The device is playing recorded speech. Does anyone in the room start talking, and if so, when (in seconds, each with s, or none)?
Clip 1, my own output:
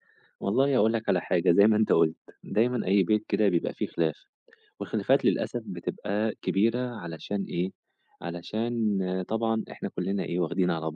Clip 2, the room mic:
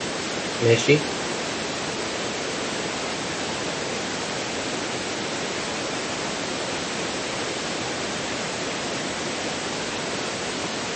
0.6 s